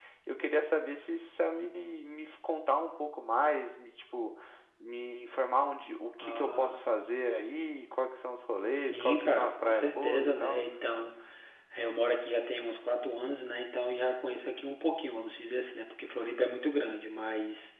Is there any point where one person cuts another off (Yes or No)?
Yes